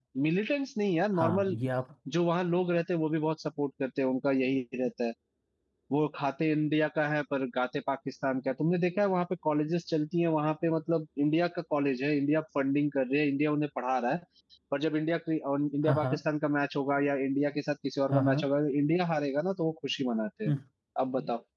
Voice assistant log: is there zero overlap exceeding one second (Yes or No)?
Yes